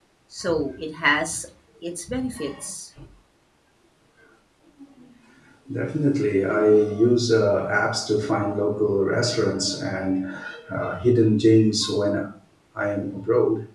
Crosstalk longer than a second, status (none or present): none